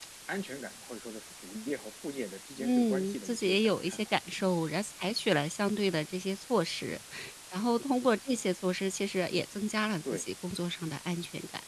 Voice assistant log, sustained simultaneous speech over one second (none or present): present